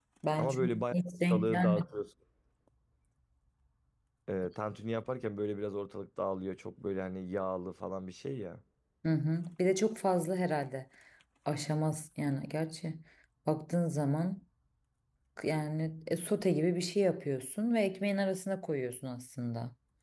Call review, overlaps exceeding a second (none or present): present